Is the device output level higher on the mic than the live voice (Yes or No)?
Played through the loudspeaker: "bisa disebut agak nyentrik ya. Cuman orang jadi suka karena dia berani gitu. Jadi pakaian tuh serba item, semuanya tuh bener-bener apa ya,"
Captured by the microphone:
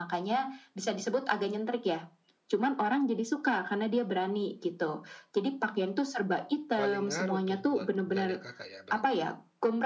Yes